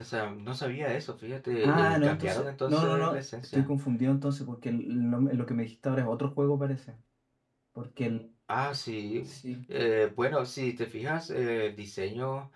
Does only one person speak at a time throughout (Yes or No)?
No